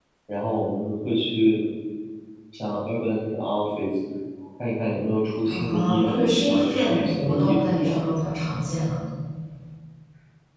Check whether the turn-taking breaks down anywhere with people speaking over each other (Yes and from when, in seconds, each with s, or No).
Yes, from 5.5 s